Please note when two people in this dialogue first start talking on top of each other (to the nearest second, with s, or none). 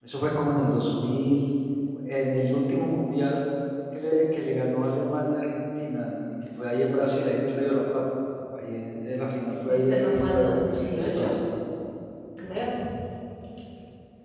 10 s